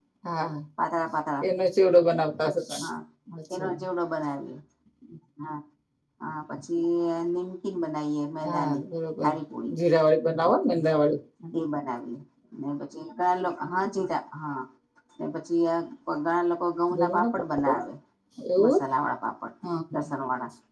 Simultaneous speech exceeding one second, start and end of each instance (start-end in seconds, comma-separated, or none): none